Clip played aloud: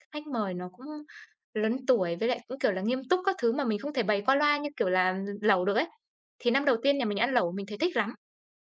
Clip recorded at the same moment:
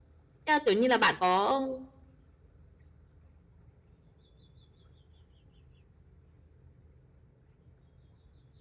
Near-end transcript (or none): Thế là, kiểu như là, bạn có